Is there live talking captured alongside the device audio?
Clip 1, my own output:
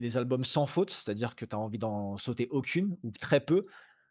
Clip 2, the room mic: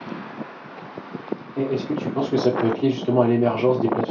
Yes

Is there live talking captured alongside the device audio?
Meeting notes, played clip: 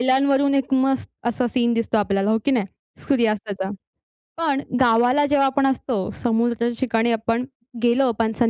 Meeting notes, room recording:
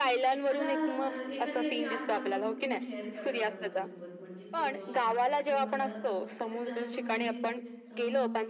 Yes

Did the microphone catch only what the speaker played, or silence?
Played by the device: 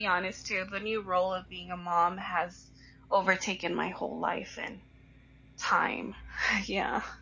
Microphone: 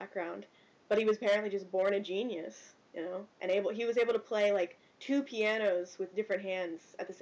No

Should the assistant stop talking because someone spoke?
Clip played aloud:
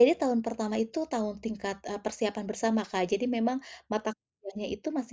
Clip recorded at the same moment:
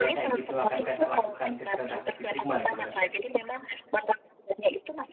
Yes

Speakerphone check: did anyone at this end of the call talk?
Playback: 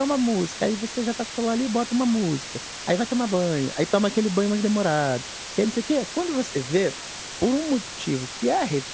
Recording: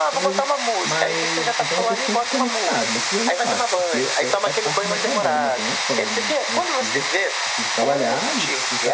Yes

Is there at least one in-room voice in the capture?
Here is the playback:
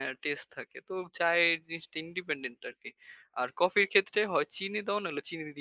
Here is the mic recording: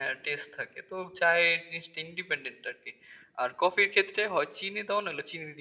No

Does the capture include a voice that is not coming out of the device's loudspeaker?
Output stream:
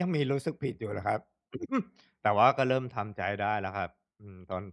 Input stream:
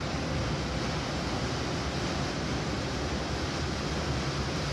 No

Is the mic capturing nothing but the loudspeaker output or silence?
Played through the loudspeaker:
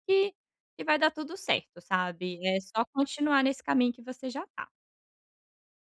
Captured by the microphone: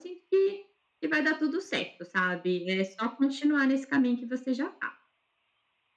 Yes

